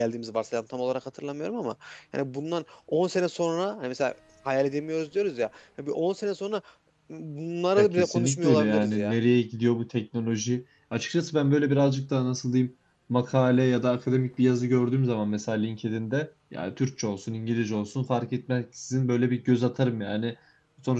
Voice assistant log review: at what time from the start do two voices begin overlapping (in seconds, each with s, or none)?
7.8 s